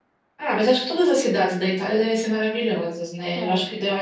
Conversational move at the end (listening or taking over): listening